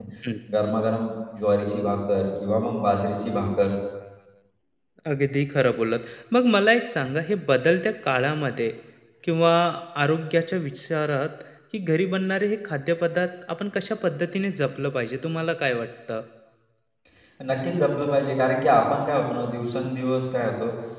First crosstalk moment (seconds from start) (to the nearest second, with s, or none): none